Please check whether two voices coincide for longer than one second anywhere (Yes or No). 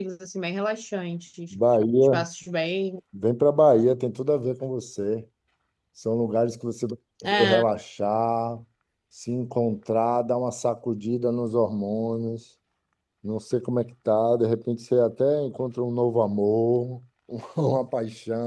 No